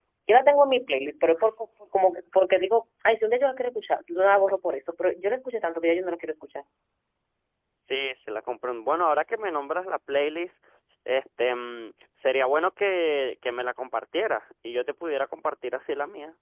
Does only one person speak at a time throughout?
Yes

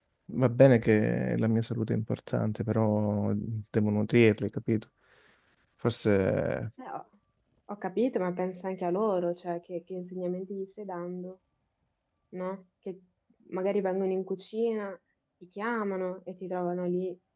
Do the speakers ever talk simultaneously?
No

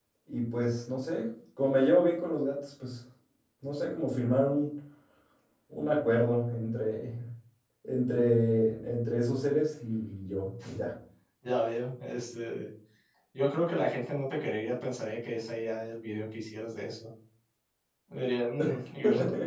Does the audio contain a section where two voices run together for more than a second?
No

